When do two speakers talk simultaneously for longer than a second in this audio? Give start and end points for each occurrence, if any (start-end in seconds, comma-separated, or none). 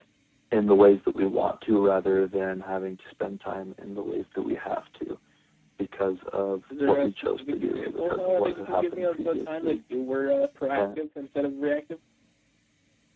6.7-9.8